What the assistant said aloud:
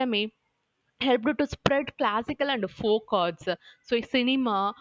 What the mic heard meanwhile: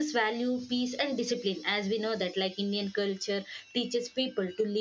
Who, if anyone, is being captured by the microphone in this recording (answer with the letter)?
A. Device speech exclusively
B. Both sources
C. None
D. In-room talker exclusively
D